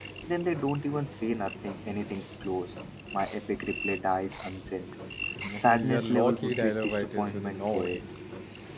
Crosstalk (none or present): present